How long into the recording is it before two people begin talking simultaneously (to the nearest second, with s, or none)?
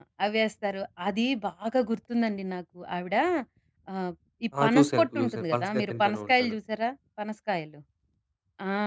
5 s